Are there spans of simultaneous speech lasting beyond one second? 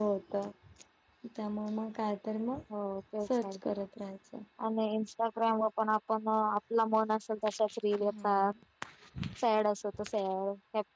No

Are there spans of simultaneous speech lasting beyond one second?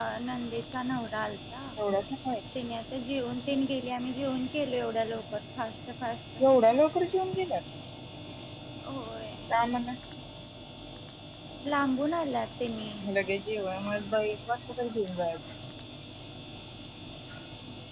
No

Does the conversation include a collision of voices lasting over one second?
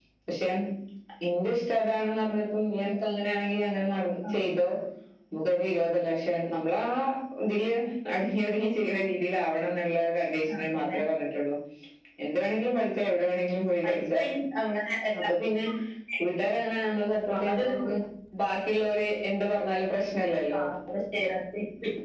No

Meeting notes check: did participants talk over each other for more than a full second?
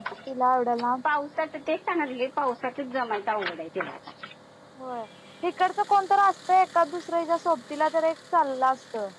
No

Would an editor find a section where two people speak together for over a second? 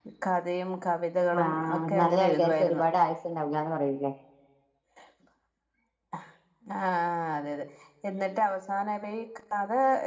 Yes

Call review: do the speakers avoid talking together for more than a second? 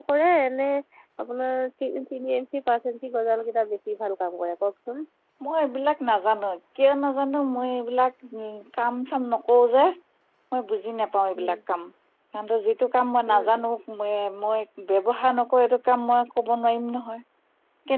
Yes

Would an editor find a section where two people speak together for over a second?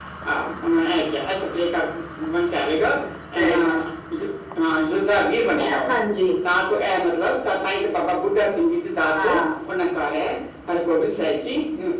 No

